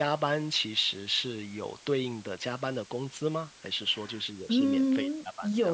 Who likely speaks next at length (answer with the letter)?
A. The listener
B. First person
A